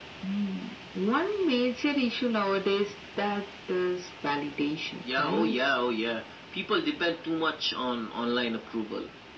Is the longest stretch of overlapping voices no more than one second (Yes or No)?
Yes